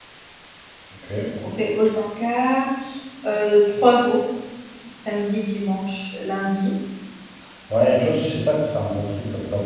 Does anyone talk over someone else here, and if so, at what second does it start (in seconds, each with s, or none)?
none